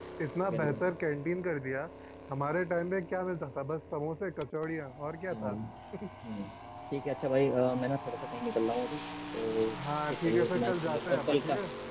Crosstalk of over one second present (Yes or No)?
Yes